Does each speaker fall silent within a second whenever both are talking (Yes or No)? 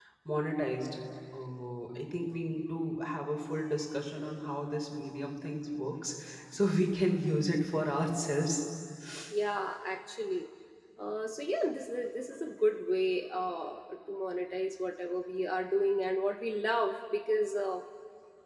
Yes